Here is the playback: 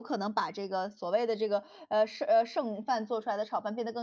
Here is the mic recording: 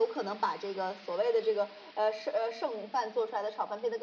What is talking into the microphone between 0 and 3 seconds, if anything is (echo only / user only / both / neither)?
echo only